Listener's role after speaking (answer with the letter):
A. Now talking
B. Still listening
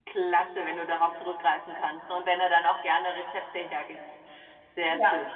A